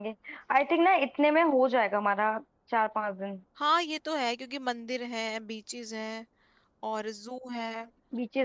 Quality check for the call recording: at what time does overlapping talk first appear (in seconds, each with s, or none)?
none